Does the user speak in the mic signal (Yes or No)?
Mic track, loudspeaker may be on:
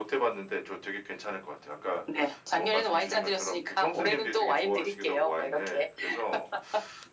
No